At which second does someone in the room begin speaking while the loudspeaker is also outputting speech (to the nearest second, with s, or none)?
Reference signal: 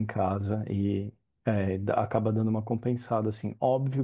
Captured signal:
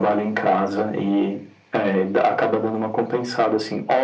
none